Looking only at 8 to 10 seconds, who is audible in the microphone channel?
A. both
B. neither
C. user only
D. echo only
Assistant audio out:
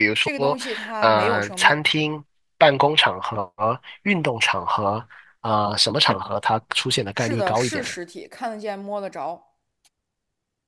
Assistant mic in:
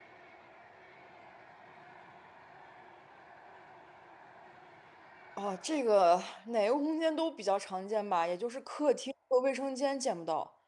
C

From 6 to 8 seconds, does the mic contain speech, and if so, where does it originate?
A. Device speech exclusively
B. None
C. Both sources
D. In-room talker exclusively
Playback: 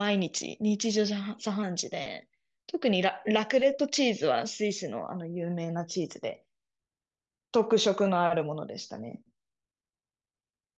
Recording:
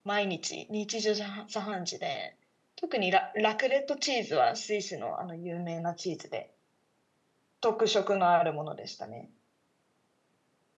A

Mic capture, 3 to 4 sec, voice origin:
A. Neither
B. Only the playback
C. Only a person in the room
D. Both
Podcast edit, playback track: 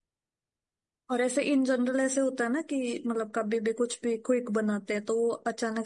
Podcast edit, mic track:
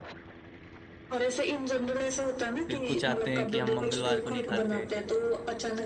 D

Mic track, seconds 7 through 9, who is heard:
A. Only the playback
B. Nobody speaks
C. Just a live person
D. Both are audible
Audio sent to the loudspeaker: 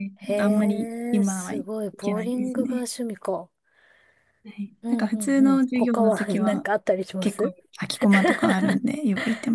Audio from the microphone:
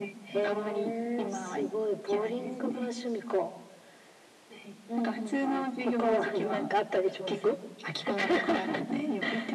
A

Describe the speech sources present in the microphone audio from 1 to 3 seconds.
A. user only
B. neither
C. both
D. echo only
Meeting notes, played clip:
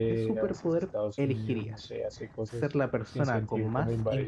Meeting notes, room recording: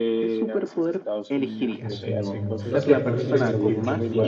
C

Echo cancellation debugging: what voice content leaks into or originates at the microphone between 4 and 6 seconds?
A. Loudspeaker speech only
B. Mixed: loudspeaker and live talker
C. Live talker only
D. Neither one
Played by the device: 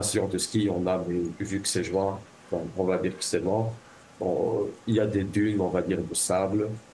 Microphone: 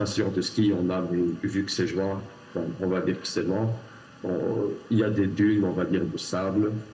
A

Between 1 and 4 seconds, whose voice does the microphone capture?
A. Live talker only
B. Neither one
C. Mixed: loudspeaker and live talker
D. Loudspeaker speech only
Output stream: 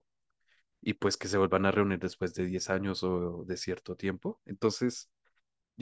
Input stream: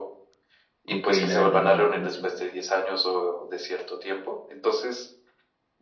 C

